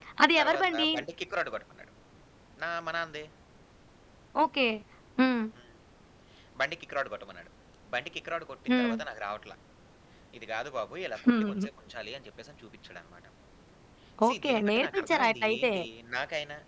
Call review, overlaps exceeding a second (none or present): present